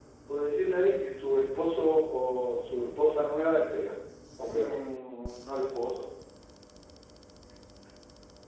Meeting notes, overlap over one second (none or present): none